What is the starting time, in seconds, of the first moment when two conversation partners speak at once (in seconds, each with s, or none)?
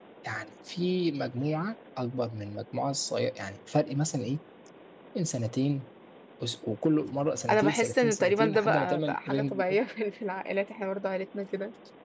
7.5 s